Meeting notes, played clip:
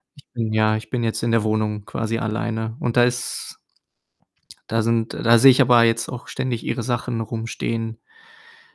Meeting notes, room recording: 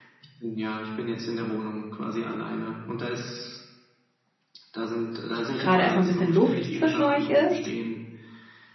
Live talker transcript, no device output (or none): grade erst mal 'n bisschen Luft zwischen euch ist,